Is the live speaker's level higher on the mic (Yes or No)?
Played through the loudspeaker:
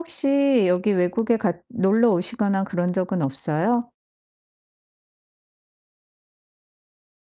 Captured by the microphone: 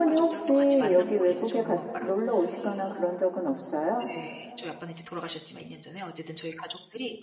No